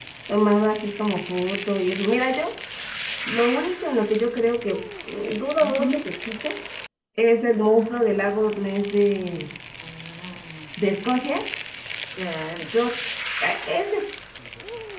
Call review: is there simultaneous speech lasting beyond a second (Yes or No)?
No